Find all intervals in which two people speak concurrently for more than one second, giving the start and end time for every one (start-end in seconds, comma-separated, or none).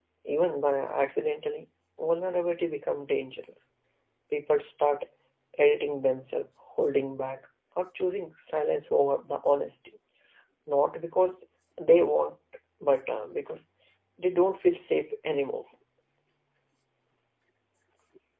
none